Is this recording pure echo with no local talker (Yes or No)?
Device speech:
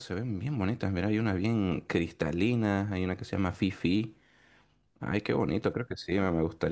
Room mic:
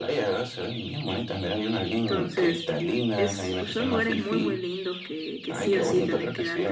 No